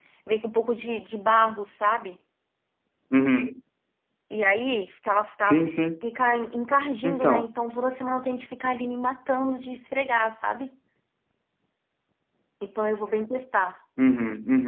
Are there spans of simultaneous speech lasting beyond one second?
No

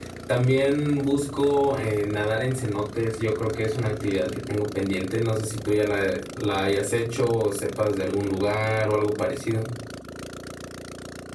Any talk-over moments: No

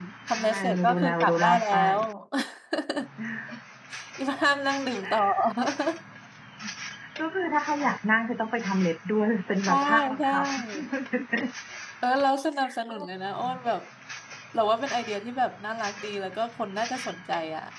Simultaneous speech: Yes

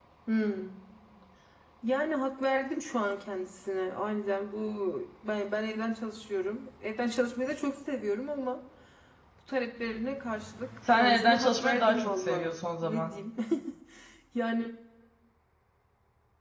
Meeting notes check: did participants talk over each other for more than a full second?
Yes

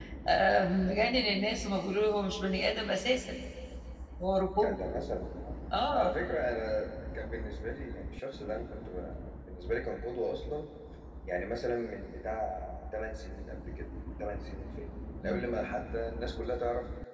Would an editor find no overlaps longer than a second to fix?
Yes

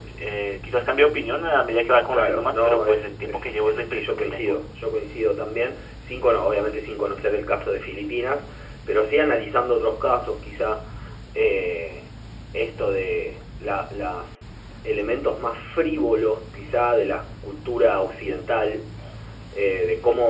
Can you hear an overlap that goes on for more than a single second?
Yes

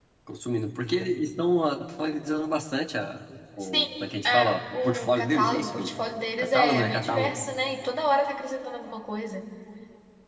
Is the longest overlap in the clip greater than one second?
Yes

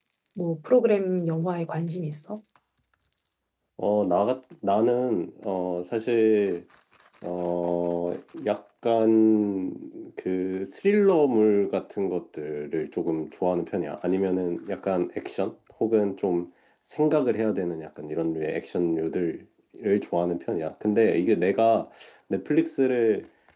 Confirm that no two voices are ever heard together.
Yes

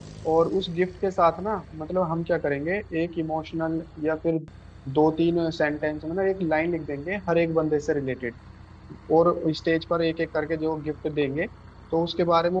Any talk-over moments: No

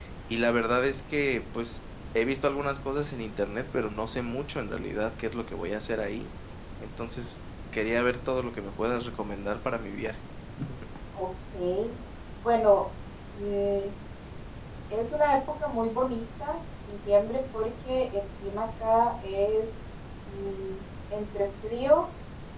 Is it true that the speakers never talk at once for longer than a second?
Yes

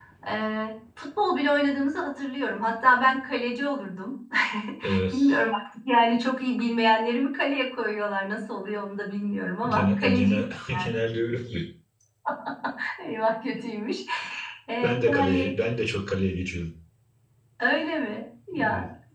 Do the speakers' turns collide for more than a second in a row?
Yes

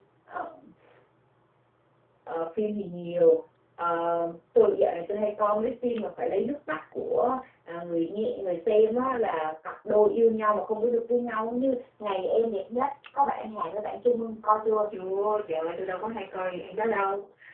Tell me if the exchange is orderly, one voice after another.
Yes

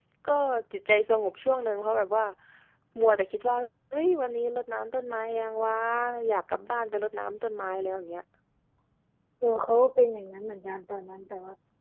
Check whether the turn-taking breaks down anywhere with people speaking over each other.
No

